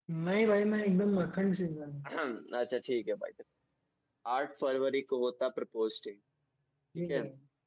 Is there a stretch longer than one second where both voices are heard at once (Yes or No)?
No